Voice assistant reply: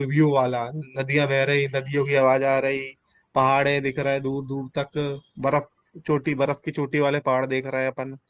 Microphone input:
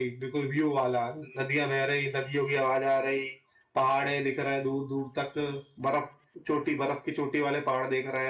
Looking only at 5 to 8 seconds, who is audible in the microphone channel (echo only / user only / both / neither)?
echo only